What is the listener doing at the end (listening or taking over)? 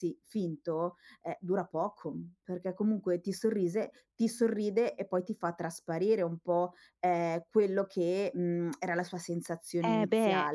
taking over